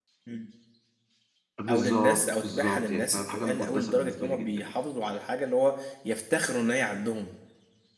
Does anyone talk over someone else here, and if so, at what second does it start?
2 s

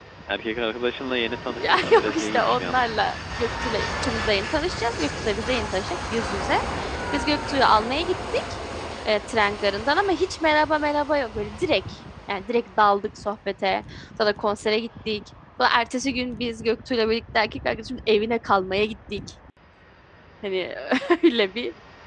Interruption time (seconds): 1 s

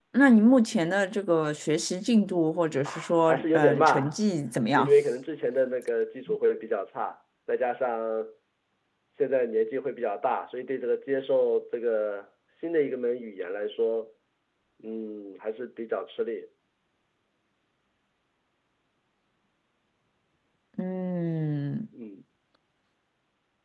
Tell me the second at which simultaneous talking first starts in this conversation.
3 s

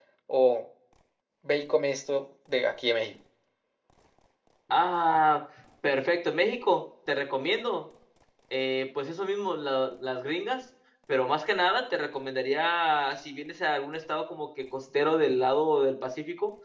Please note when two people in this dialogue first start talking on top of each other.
none

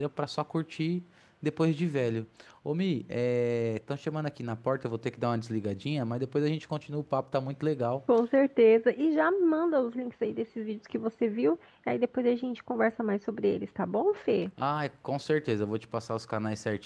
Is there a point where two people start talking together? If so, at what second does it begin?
none

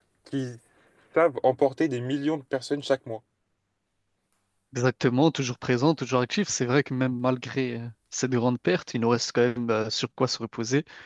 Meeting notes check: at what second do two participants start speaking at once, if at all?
none

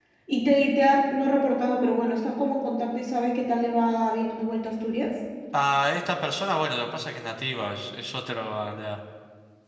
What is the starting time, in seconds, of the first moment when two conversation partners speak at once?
none

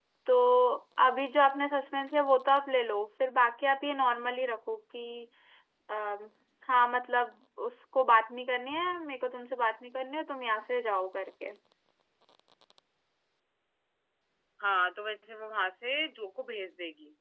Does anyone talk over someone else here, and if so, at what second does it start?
none

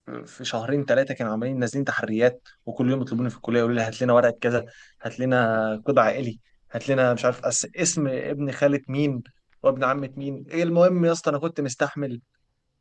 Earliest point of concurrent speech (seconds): none

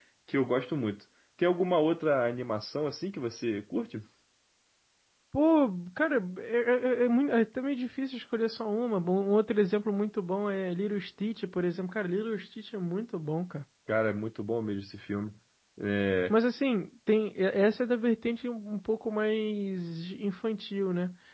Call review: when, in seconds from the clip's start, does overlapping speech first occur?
none

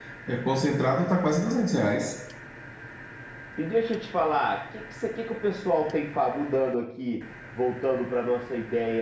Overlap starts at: none

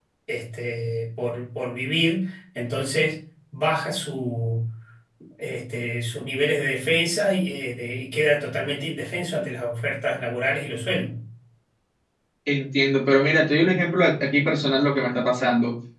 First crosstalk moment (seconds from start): none

